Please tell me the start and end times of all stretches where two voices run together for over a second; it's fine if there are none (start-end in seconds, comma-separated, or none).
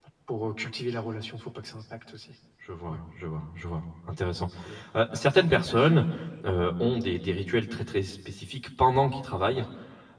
none